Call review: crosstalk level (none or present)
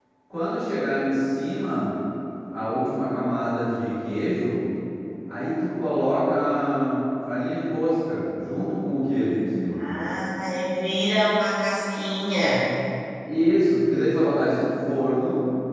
none